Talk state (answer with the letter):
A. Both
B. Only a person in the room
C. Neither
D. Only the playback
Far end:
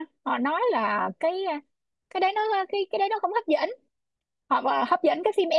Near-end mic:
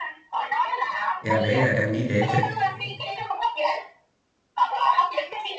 A